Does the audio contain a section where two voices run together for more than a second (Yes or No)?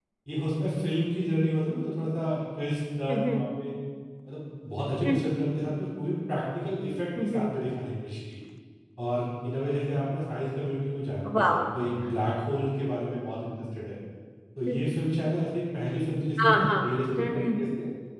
No